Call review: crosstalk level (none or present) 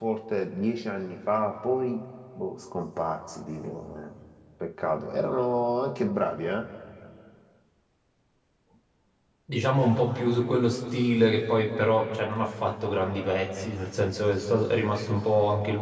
none